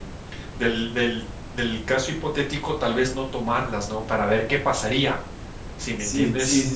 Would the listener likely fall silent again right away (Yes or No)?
No